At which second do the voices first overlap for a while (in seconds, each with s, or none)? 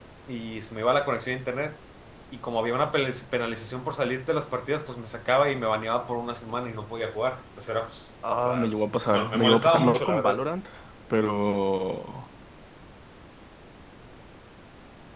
8.2 s